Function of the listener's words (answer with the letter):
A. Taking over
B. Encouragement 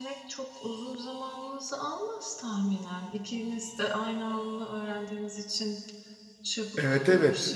A